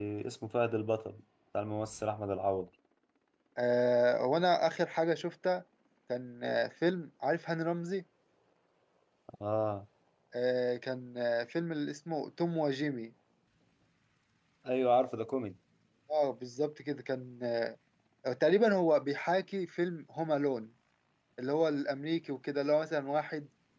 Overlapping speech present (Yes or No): No